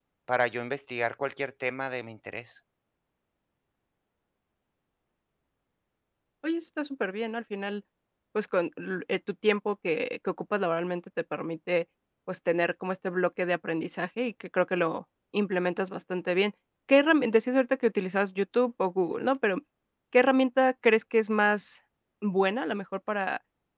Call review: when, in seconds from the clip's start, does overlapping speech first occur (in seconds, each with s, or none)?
none